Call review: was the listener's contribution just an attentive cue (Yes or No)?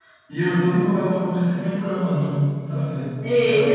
No